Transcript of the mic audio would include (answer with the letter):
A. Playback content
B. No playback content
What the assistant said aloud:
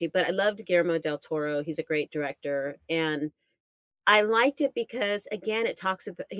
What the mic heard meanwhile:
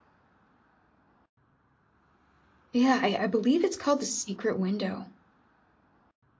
B